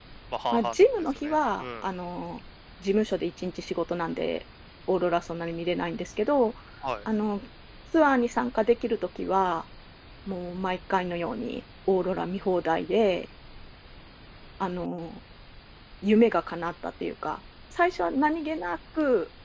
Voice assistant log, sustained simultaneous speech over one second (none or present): present